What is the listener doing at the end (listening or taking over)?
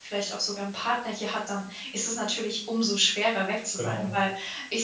listening